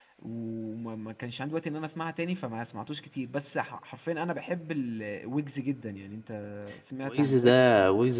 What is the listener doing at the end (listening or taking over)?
taking over